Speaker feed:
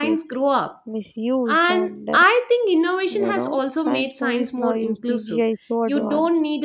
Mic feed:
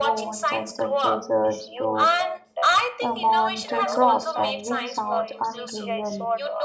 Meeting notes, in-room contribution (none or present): present